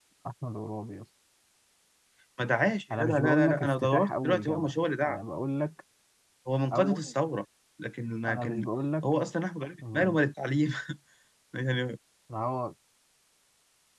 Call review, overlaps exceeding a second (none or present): present